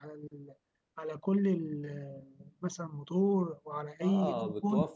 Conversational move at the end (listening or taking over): taking over